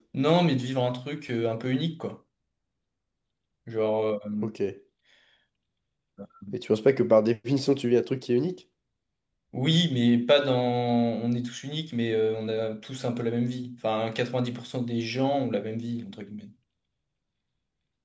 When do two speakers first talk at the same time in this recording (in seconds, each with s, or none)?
none